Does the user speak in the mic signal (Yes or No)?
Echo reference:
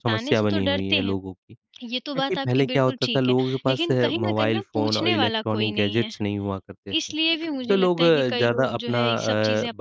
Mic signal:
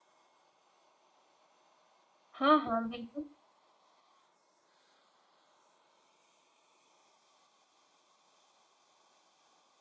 Yes